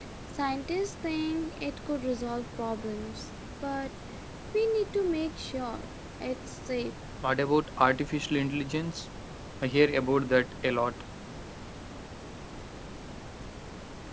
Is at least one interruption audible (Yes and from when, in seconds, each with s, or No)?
No